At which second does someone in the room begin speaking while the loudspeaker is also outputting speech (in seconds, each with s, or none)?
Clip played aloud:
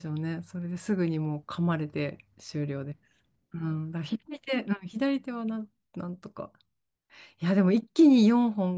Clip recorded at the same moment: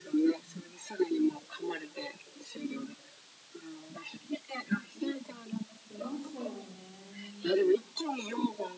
5.9 s